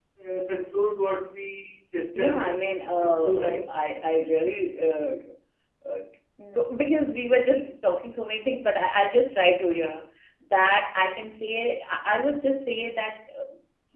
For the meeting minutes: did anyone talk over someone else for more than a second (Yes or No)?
Yes